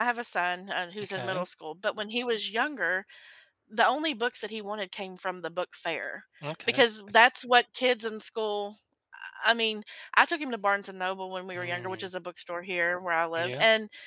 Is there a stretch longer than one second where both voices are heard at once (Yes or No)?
No